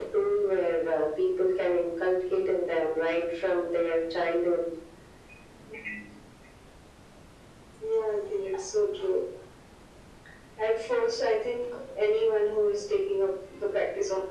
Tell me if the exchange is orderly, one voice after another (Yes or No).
Yes